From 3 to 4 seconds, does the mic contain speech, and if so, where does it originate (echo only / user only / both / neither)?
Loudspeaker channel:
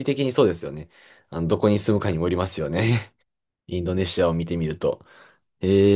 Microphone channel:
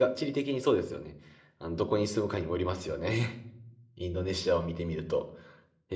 echo only